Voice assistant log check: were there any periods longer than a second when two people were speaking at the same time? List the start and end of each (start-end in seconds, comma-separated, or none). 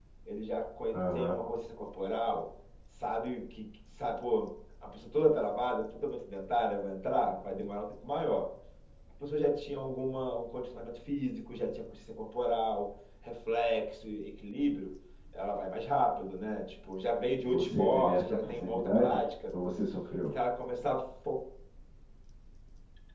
17.5-19.2